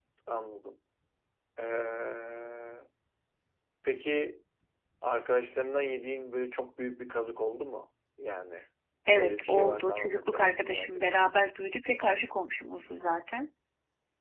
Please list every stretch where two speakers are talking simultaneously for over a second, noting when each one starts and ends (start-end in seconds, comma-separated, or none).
9.1-11.0